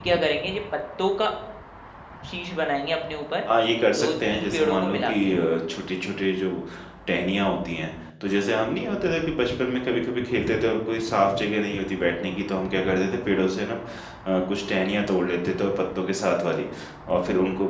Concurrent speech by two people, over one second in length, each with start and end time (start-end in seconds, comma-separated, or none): 3.9-5.3